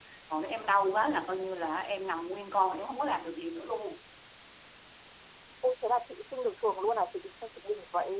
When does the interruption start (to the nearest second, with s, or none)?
none